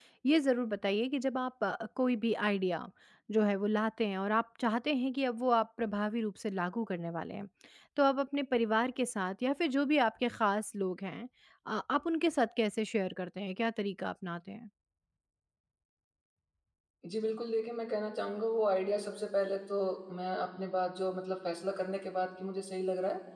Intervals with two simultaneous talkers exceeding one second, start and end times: none

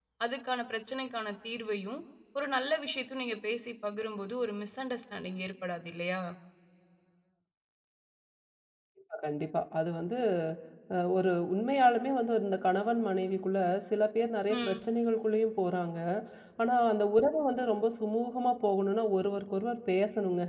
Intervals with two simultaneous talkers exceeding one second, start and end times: none

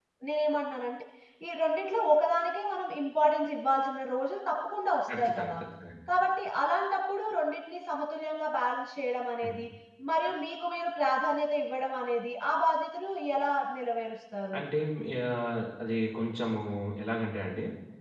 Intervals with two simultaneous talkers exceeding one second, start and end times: none

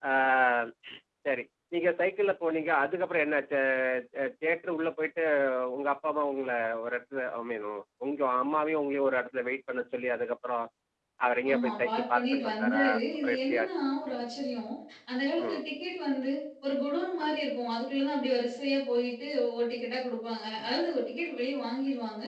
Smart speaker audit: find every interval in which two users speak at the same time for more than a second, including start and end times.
11.5-13.7

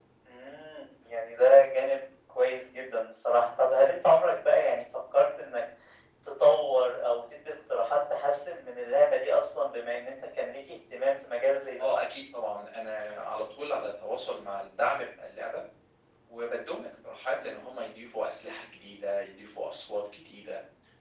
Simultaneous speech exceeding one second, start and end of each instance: none

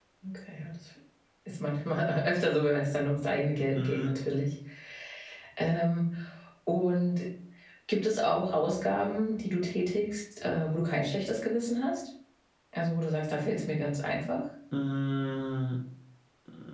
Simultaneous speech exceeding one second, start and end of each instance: none

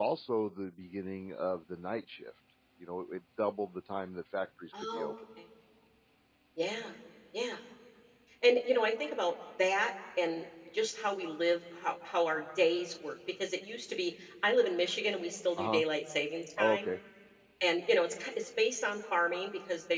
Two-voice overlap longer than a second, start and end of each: none

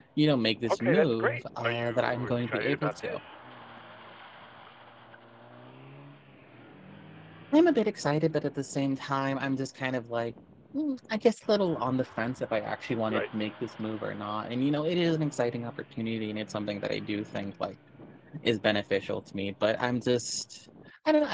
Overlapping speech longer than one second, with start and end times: 0.7-3.2

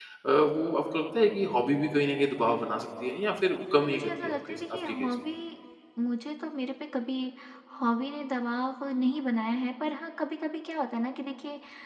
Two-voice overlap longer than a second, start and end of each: 3.8-5.1

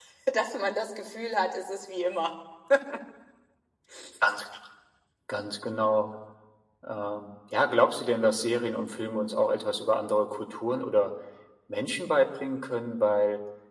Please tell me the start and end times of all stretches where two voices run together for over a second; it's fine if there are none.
none

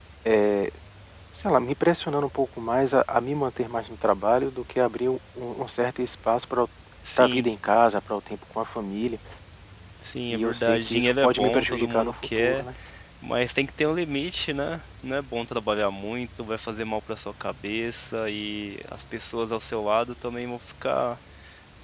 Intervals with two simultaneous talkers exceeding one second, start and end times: 10.3-12.6

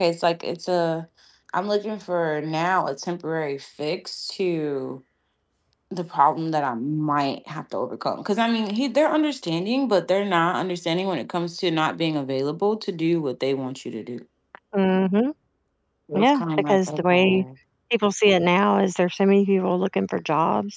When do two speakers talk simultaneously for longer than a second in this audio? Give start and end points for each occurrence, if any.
16.1-17.4

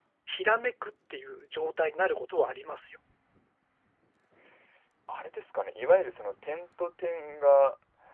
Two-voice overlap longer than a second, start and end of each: none

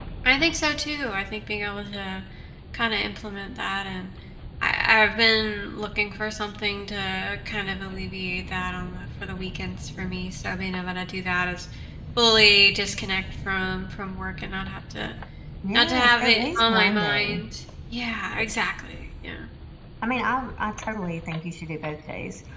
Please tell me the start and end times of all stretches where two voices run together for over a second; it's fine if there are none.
15.7-17.4

